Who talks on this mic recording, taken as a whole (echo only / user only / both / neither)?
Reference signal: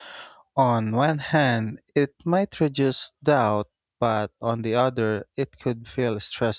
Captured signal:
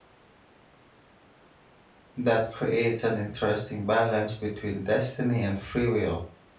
user only